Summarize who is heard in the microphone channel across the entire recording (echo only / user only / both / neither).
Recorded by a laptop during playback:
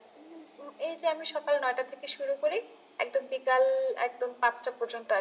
echo only